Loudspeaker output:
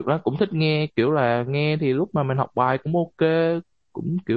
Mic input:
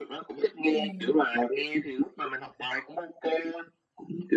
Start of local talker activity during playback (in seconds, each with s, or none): 0.7 s